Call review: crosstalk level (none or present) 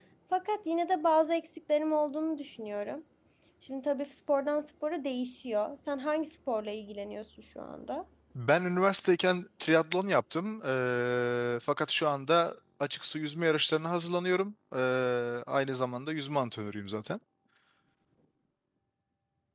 none